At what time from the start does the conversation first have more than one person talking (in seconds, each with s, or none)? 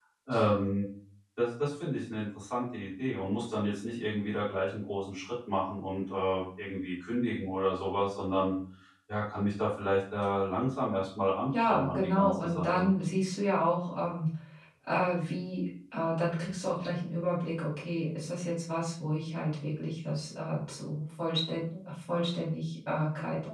11.5 s